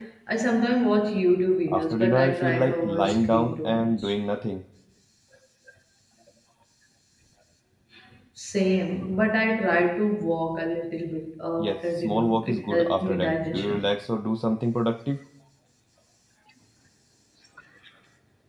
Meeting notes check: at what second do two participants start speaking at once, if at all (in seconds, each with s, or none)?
1.7 s